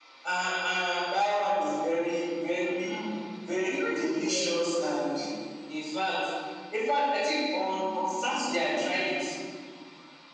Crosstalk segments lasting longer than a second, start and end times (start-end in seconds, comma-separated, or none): 3.7-5.0, 7.7-8.9